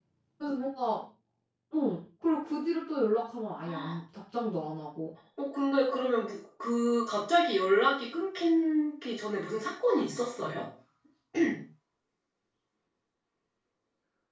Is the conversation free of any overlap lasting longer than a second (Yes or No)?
Yes